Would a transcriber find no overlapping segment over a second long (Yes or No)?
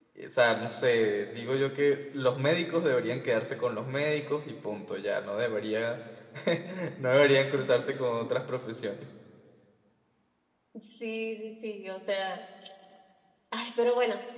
Yes